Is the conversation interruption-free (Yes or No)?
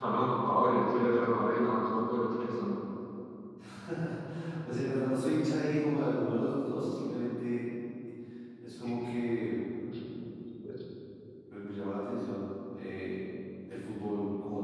Yes